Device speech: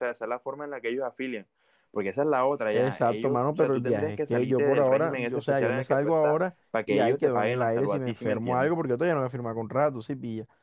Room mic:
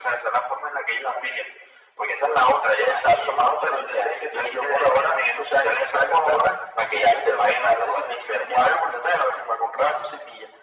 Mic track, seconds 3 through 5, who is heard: echo only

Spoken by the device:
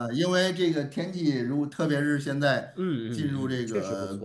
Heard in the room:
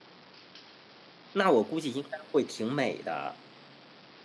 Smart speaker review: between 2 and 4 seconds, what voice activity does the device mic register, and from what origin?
user only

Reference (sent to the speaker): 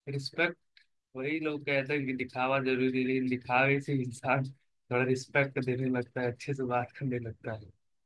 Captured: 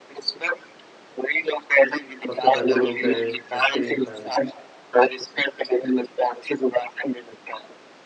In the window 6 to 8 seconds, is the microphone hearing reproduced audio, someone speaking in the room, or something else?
echo only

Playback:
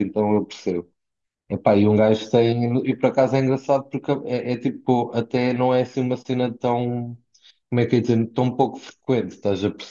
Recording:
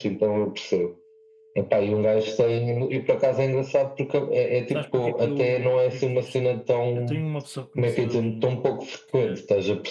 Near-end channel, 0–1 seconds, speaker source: echo only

